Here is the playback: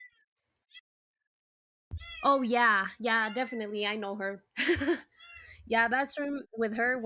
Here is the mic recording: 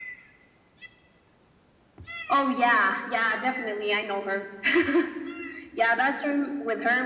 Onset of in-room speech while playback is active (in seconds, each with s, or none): none